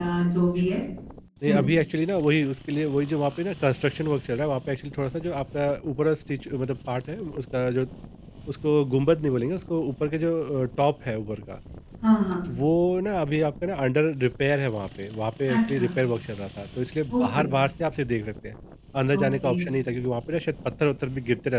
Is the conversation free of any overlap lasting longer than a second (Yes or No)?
Yes